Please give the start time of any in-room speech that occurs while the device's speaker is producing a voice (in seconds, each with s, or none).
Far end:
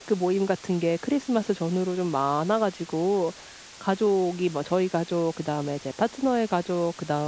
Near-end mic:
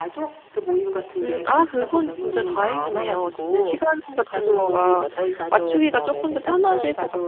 1.2 s